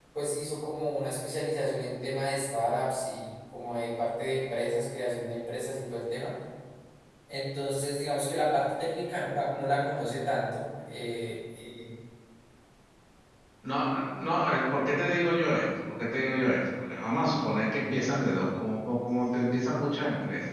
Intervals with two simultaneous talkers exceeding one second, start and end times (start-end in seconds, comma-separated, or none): none